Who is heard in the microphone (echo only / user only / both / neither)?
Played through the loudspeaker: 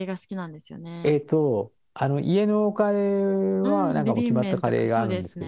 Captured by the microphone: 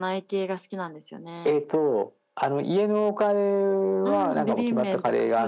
echo only